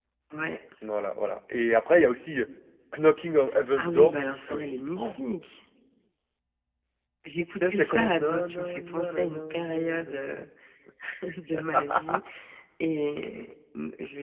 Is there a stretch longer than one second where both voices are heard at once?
Yes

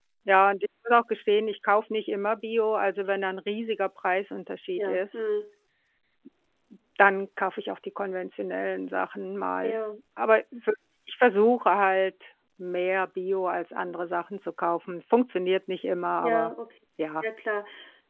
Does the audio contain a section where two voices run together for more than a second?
No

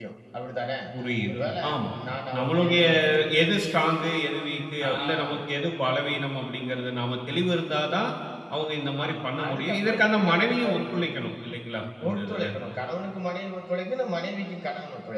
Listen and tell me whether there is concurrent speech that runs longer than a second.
Yes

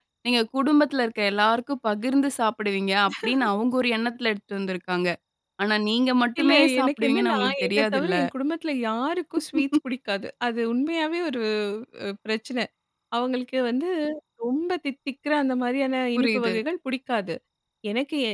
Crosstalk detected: Yes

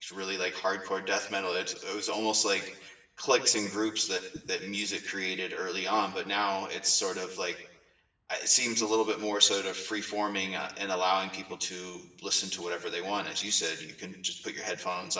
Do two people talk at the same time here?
No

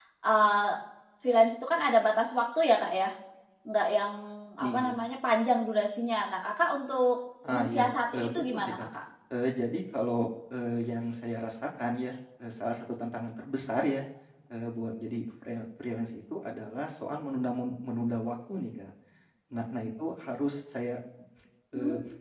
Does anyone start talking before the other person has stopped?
Yes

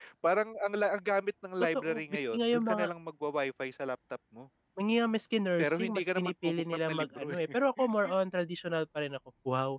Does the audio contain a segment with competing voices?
Yes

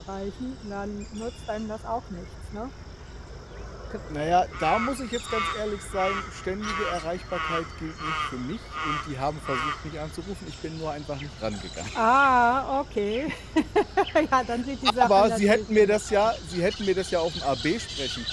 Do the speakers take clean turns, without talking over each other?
No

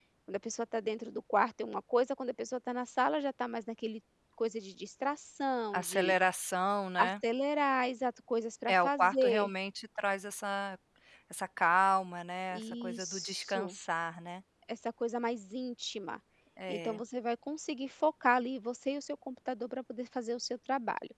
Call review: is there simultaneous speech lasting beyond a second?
Yes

